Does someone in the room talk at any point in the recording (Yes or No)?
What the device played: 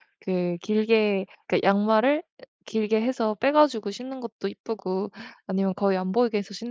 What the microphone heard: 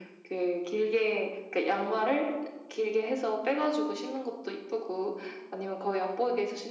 No